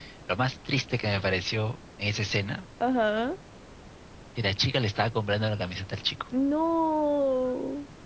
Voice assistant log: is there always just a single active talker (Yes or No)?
Yes